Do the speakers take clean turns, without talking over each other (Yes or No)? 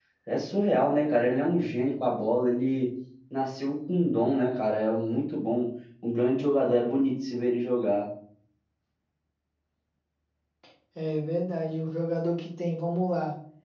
Yes